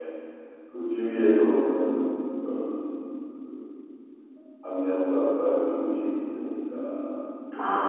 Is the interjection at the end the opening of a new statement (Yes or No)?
Yes